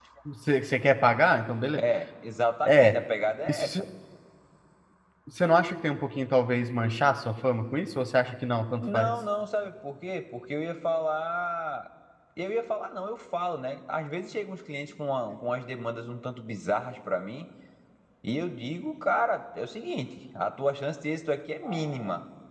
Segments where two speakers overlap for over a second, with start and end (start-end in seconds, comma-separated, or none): none